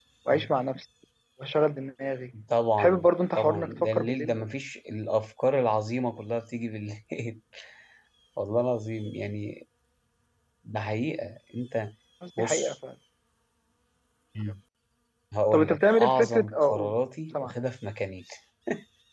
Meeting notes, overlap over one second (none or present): present